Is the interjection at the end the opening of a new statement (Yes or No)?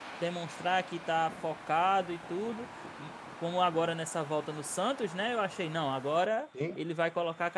No